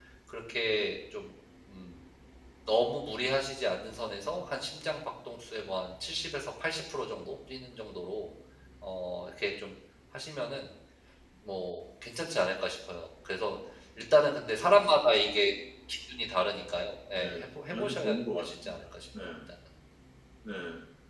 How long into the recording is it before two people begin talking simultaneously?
17 s

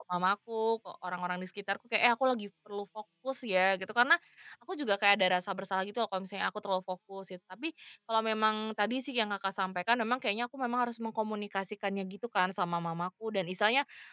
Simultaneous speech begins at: none

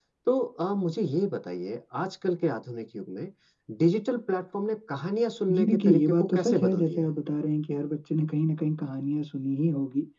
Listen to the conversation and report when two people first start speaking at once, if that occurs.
5 s

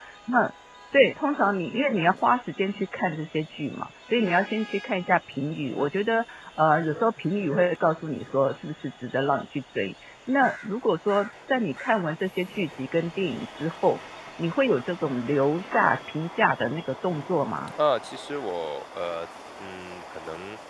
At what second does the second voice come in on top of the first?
none

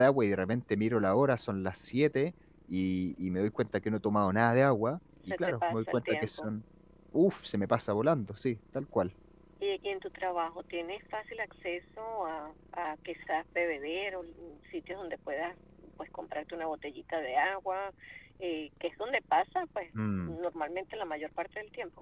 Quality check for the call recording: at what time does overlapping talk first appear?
5 s

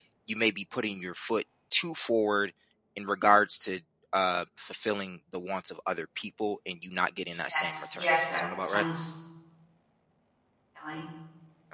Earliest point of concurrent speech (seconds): 8 s

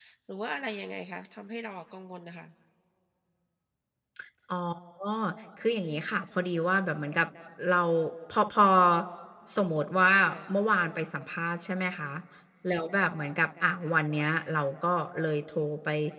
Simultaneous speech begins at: none

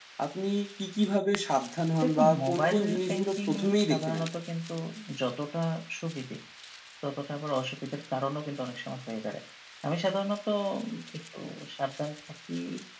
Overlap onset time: 2 s

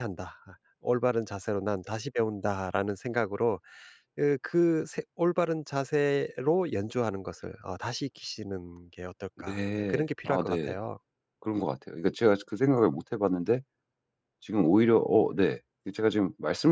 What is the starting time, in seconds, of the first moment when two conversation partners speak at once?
9 s

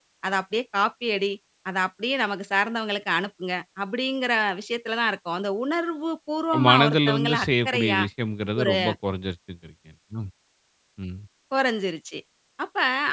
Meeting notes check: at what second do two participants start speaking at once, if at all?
7 s

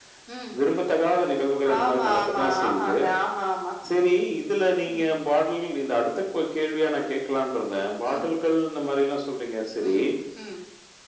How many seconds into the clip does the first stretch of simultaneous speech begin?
2 s

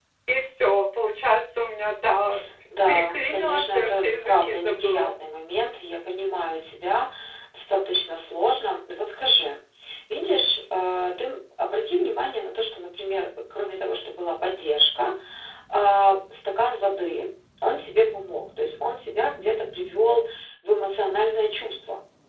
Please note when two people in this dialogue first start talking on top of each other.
3 s

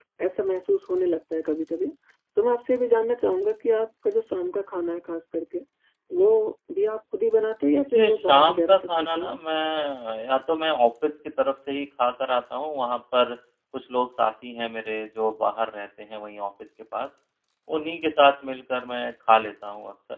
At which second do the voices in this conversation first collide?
8 s

